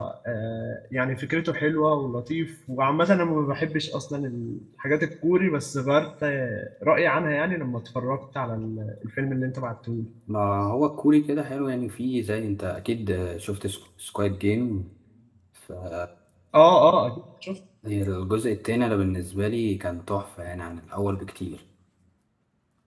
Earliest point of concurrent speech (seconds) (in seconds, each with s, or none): none